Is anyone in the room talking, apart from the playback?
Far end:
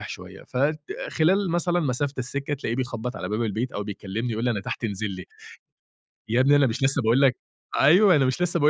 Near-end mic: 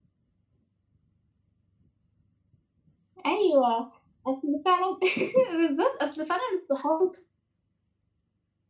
Yes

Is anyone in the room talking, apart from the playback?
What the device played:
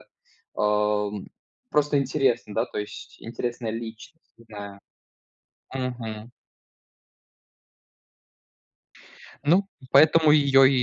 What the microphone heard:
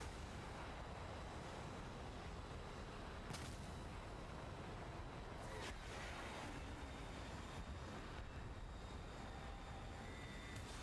No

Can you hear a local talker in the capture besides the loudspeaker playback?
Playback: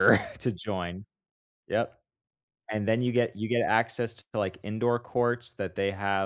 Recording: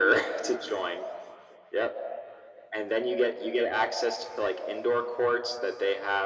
No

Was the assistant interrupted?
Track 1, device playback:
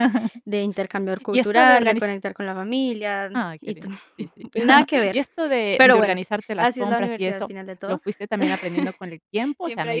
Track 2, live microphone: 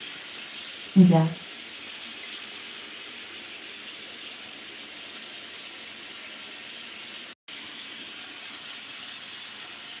Yes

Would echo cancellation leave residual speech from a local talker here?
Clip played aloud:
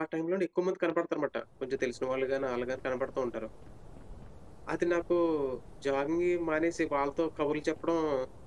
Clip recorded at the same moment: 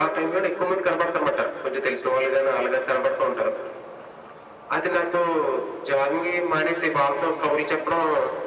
No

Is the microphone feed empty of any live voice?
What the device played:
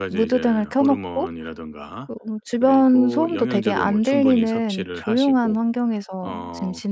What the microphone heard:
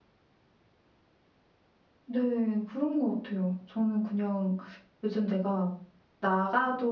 No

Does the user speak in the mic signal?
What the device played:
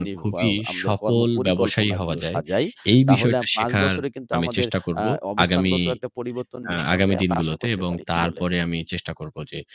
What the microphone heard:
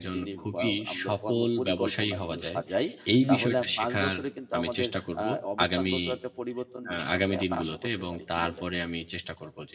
Yes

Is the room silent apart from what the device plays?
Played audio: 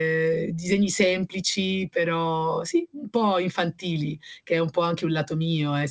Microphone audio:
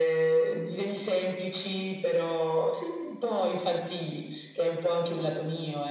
Yes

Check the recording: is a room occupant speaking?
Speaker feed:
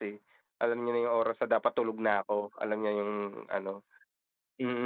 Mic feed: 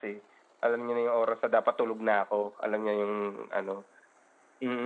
No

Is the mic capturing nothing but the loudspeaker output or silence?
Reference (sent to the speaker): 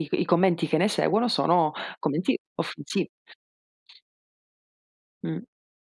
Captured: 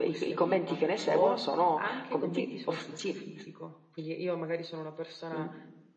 No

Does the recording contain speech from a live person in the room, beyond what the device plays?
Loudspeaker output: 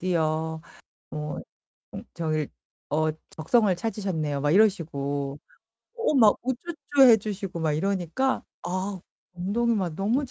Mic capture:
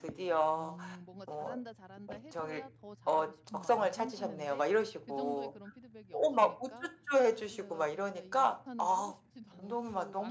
Yes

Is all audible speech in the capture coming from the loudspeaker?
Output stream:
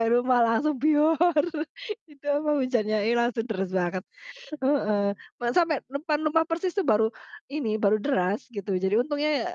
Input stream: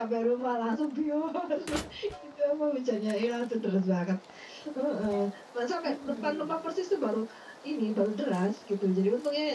No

